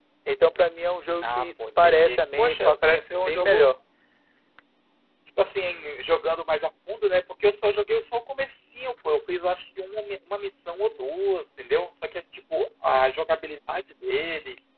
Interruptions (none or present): present